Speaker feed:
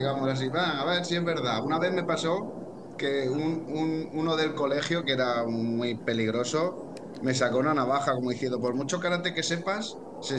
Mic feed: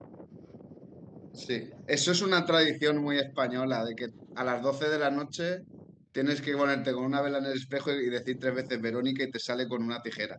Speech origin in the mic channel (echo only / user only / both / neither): user only